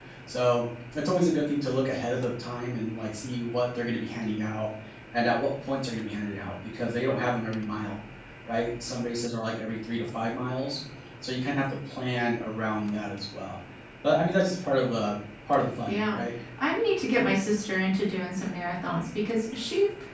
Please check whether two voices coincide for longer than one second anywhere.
No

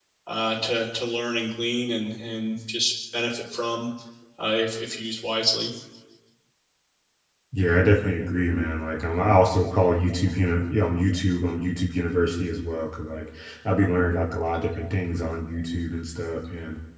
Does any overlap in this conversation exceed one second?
No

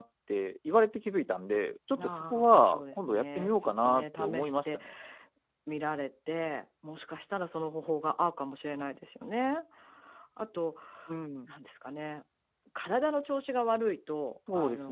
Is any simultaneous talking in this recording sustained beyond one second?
Yes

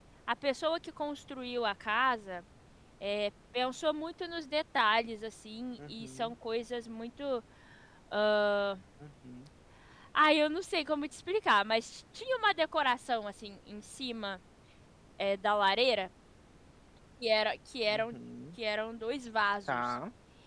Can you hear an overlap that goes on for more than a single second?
No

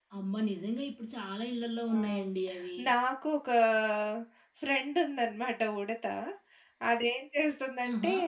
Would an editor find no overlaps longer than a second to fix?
Yes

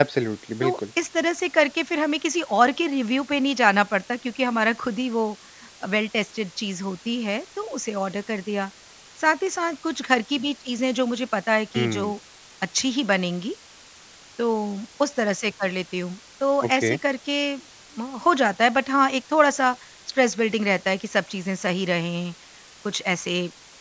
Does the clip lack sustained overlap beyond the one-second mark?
Yes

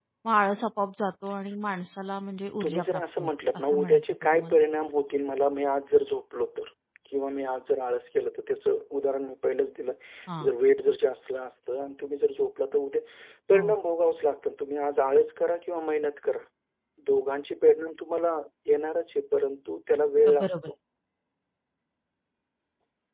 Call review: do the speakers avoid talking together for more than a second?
No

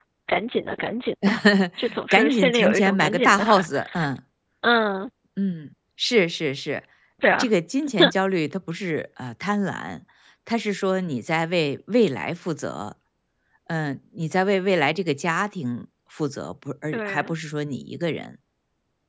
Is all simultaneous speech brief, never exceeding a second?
No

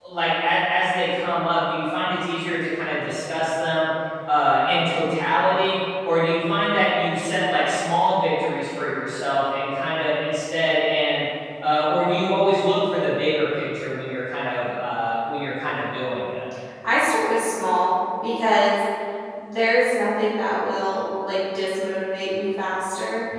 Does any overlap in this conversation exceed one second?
No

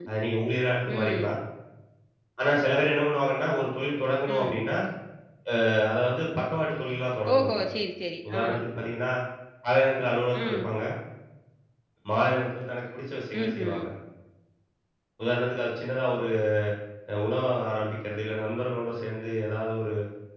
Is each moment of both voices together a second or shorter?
Yes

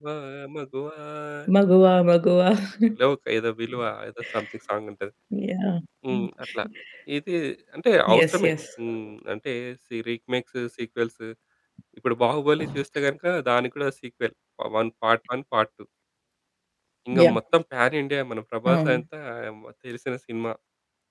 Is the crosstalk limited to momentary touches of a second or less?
Yes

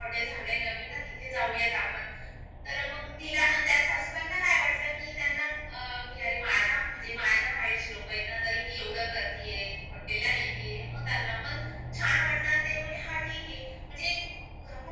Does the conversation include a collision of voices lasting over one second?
No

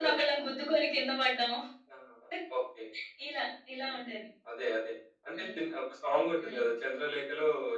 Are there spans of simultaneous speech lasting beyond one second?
No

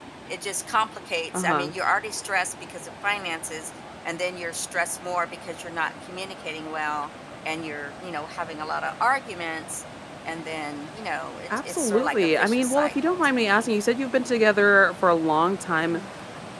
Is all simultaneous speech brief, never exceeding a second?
No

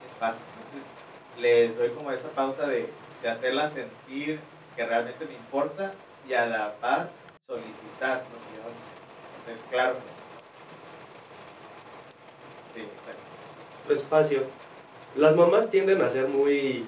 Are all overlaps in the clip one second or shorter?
Yes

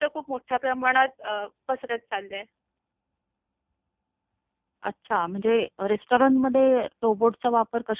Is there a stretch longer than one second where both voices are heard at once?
No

